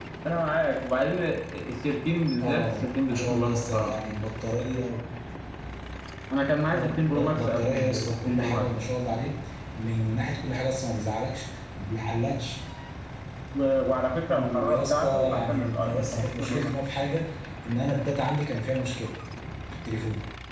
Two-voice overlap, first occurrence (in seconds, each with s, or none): 2.4 s